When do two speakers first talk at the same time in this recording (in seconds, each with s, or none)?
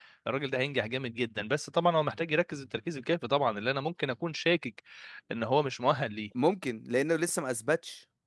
none